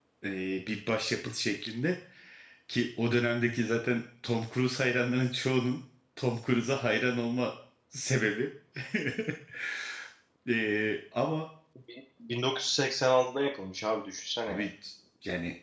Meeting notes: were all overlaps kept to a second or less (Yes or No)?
Yes